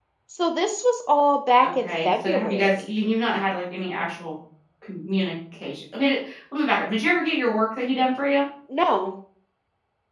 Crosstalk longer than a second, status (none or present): present